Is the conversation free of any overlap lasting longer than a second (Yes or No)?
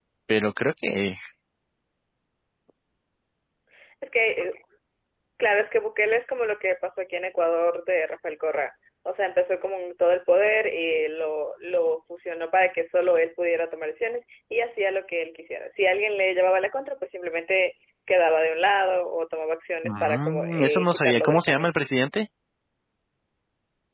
No